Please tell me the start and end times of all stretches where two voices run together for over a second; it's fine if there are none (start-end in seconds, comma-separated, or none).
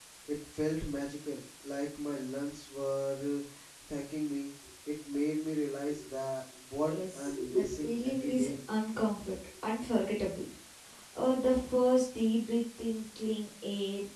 6.9-8.5